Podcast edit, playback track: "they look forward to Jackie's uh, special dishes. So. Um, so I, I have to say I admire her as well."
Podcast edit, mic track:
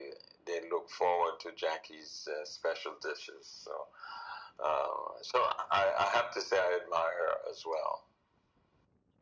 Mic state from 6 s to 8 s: echo only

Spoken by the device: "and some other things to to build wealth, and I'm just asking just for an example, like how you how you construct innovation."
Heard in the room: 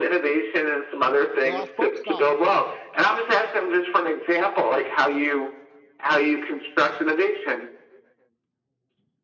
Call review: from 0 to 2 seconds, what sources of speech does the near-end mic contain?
both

